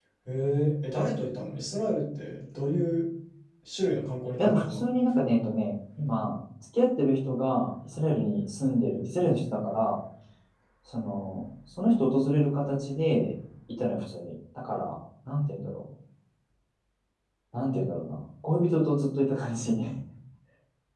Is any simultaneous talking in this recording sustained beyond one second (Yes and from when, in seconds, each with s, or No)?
No